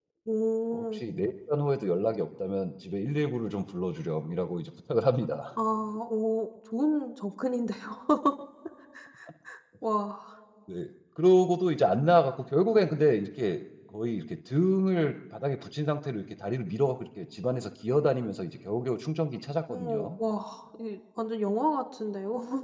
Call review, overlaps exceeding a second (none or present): none